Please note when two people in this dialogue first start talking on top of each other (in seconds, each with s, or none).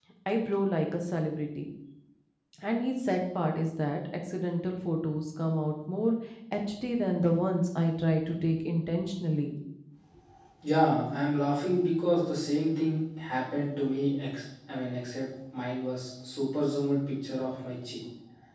none